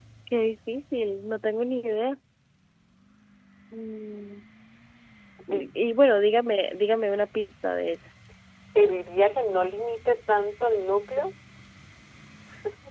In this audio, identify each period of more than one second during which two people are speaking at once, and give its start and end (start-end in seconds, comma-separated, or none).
none